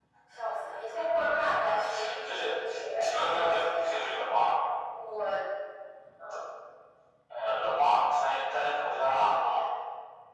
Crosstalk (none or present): present